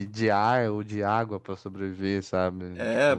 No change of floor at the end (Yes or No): No